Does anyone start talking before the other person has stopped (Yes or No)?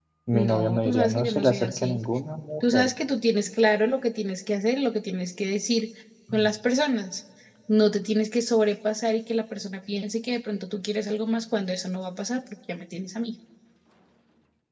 Yes